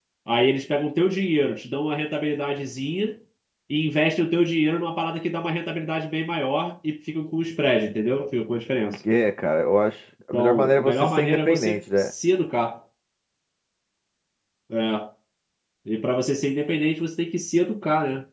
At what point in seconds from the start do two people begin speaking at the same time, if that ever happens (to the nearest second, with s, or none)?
10 s